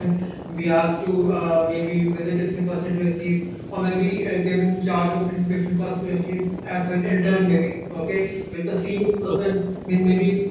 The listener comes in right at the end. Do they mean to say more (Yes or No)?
No